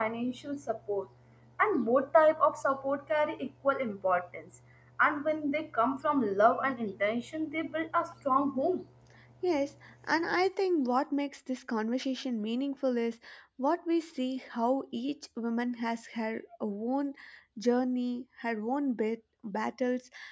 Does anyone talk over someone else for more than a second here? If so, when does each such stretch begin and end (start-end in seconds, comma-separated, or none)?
none